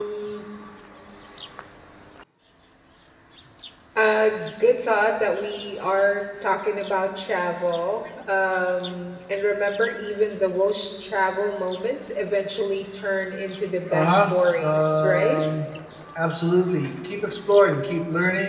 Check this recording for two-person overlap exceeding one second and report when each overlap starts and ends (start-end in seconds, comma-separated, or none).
13.9-15.4